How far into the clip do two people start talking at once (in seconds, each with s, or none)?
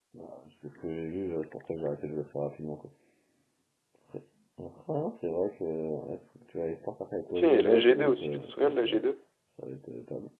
7.3 s